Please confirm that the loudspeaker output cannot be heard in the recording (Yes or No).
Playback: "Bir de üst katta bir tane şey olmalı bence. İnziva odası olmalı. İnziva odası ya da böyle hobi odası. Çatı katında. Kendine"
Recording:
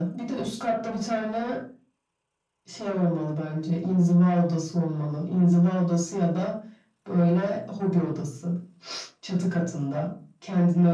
No